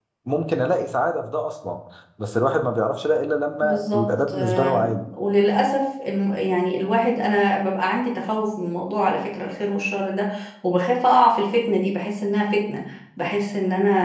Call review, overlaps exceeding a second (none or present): present